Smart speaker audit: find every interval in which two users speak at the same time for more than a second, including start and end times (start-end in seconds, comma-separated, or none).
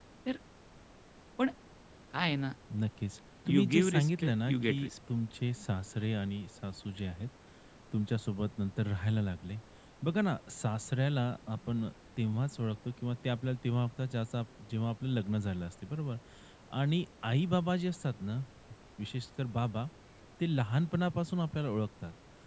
3.5-4.9